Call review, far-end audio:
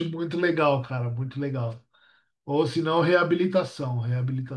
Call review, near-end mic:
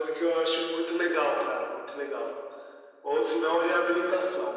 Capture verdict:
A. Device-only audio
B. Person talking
A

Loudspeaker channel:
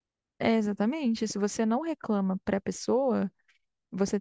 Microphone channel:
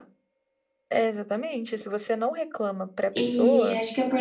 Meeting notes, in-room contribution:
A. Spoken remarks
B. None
A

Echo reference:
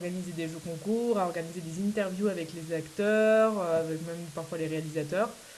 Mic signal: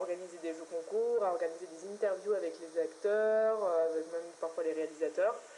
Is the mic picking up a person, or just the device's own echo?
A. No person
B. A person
A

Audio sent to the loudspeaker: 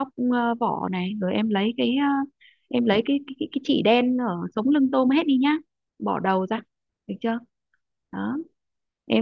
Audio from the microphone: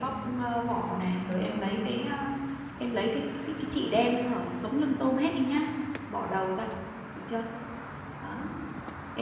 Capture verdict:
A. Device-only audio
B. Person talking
A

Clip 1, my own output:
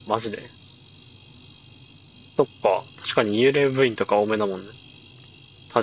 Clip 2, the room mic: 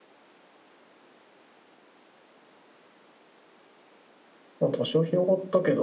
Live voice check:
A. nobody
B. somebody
B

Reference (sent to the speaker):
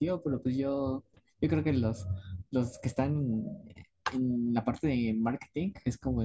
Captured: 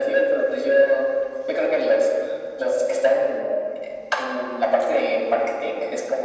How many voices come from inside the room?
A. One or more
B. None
B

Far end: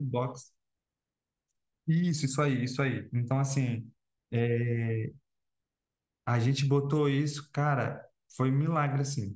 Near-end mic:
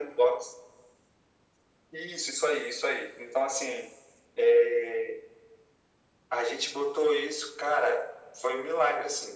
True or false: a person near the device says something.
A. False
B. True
A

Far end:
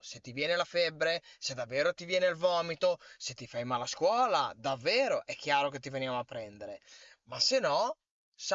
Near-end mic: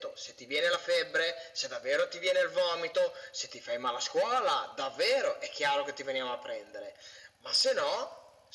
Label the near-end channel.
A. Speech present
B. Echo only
B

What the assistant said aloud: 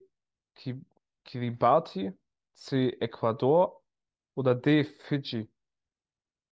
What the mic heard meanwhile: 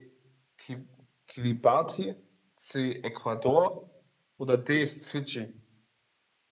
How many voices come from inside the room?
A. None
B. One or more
A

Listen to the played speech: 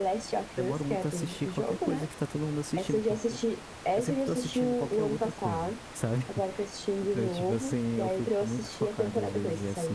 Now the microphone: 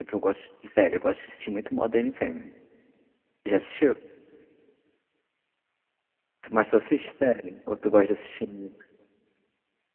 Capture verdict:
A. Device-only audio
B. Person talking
B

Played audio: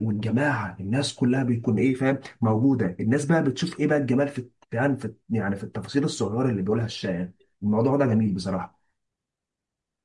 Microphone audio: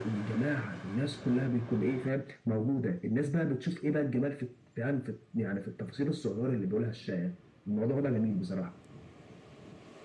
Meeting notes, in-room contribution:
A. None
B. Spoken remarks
A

